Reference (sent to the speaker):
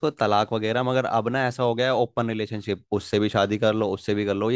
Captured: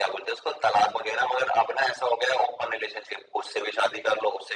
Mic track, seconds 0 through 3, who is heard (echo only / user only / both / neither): echo only